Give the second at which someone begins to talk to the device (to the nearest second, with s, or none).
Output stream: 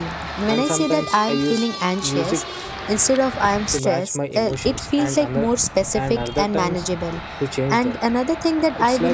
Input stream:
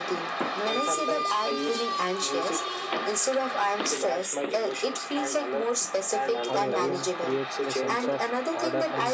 7 s